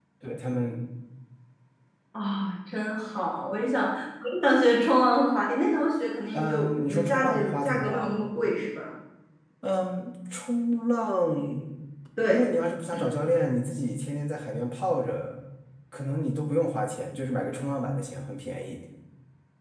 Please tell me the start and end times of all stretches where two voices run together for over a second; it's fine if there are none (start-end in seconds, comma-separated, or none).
6.3-8.1